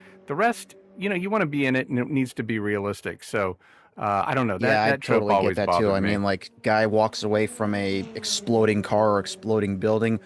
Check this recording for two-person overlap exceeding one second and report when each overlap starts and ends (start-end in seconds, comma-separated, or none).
4.6-6.2